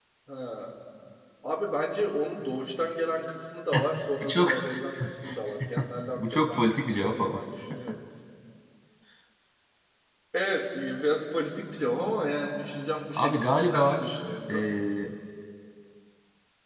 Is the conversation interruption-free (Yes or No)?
No